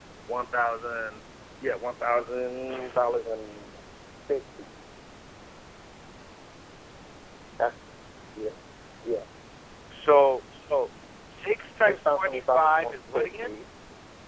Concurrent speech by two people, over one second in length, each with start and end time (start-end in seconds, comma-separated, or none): 11.8-13.5